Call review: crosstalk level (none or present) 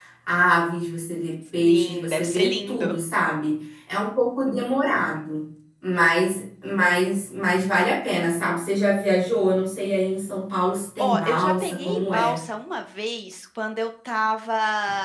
present